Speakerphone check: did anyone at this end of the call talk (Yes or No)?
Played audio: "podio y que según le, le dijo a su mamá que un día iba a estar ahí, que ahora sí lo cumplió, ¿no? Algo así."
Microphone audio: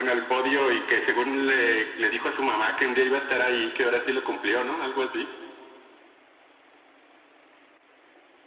No